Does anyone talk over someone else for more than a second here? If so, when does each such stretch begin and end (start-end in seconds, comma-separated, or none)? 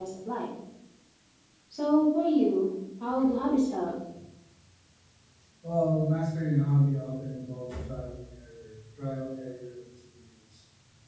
none